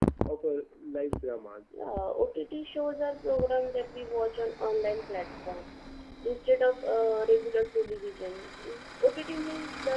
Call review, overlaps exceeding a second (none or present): none